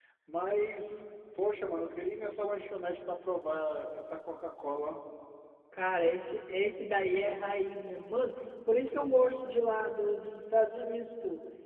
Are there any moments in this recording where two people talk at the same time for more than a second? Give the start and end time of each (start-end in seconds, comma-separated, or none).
none